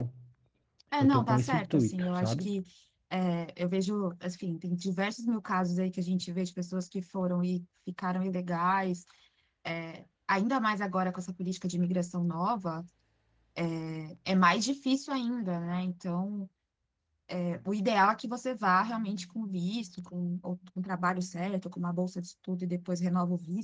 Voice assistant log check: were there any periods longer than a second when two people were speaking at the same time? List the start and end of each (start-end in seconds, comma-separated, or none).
1.0-2.5